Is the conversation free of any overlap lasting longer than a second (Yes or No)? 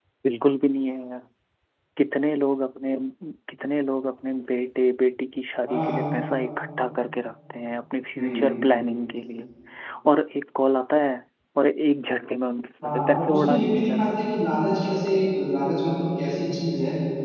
No